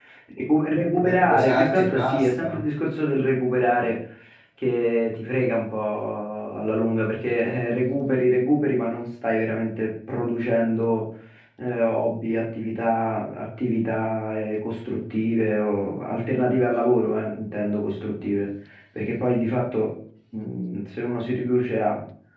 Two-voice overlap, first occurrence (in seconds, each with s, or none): 1.0 s